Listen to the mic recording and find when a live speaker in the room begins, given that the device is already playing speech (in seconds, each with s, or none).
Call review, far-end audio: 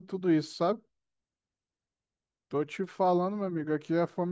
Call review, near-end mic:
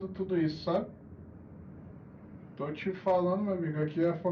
none